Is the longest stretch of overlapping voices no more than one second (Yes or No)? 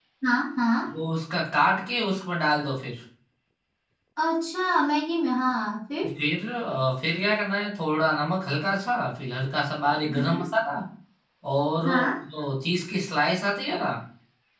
Yes